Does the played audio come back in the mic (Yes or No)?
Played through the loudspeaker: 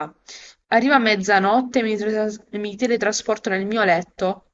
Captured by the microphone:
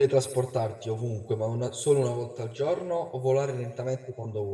No